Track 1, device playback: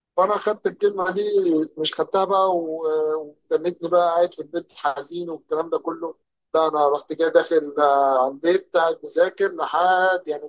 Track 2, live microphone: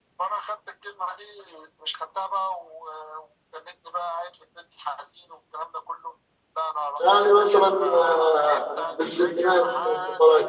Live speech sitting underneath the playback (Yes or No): No